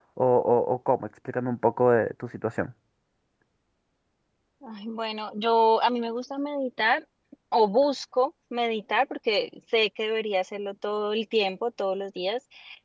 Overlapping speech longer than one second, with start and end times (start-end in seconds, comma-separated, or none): none